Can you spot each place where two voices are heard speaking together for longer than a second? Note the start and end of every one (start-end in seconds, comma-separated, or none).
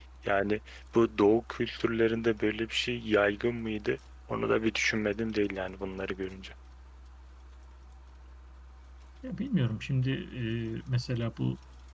none